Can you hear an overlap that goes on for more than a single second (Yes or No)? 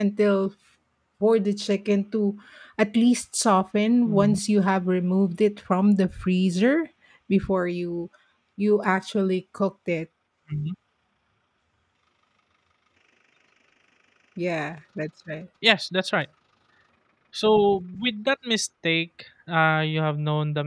No